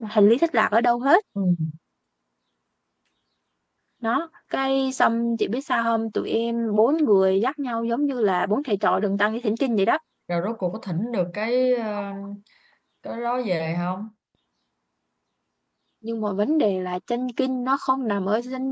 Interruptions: none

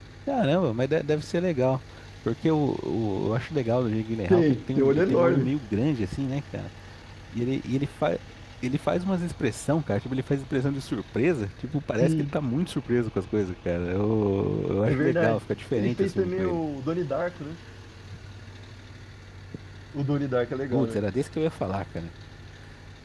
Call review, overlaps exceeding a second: present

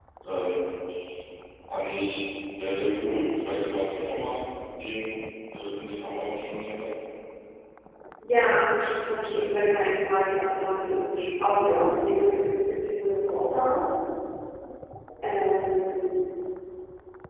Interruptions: none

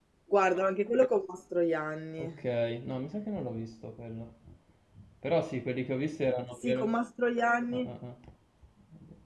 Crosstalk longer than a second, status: none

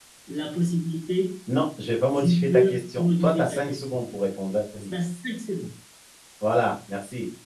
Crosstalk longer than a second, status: present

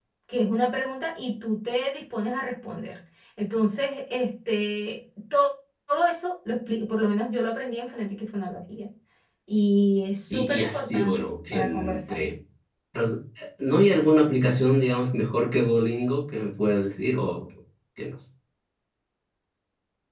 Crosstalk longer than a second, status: present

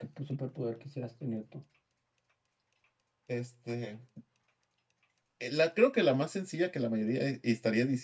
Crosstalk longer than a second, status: none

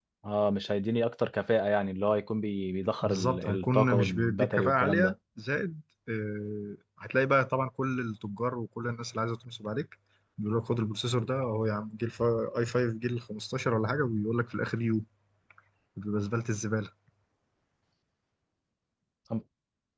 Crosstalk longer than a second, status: present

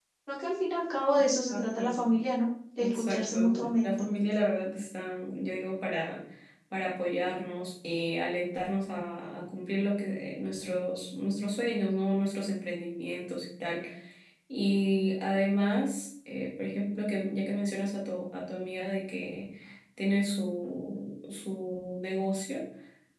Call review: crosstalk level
present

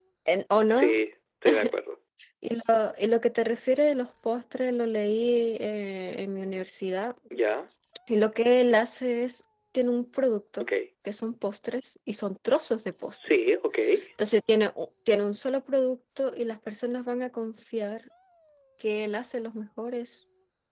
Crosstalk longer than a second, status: none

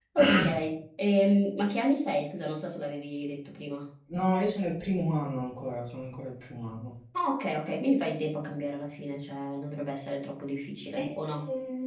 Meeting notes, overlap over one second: none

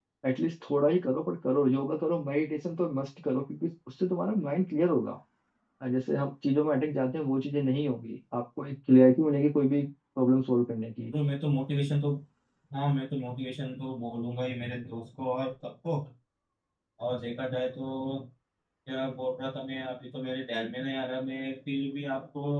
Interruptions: none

